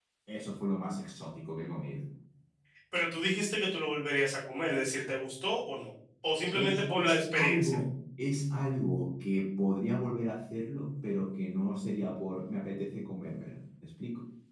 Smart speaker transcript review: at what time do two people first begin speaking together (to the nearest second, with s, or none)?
7 s